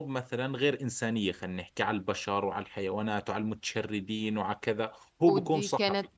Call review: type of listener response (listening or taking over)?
taking over